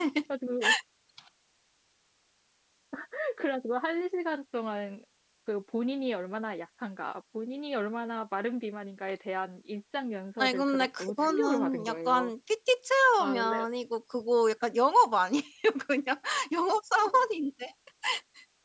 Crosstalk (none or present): present